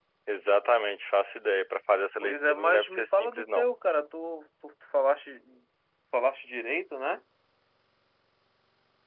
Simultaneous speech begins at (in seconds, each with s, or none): 2.2 s